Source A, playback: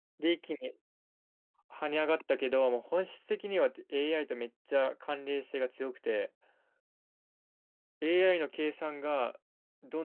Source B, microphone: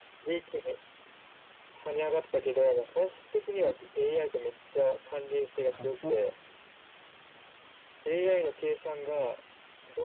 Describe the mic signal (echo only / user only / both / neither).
both